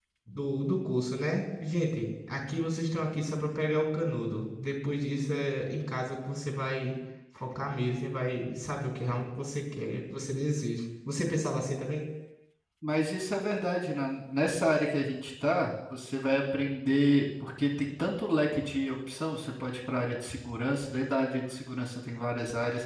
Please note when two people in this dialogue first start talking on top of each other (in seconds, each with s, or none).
none